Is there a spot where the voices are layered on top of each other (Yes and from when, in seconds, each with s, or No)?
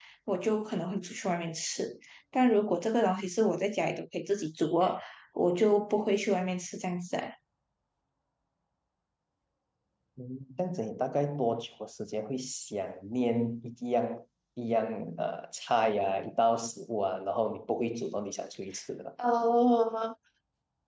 No